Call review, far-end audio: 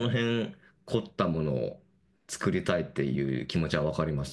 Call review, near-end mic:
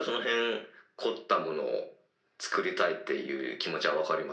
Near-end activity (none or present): none